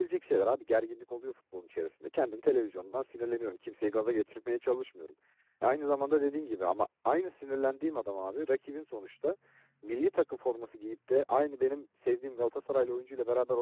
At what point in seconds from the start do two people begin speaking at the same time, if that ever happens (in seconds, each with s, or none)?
none